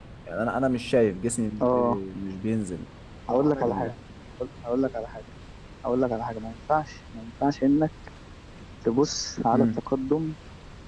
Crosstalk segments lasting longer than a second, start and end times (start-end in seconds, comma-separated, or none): none